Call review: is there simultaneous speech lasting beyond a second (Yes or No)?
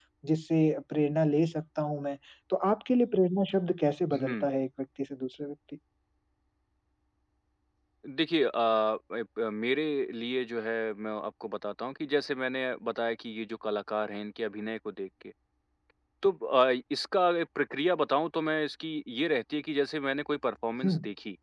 No